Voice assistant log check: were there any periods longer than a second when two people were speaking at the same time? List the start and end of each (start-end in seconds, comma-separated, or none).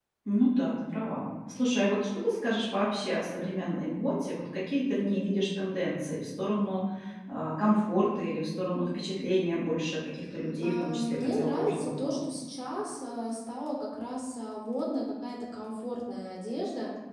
10.6-12.2